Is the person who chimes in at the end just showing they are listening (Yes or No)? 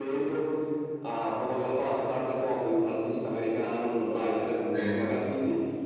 Yes